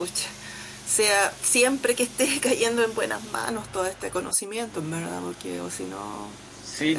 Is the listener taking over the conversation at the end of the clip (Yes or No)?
Yes